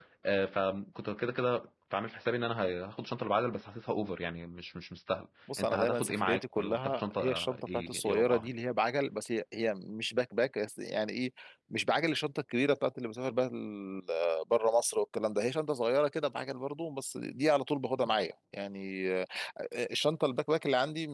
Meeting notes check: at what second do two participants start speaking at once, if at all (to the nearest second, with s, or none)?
5 s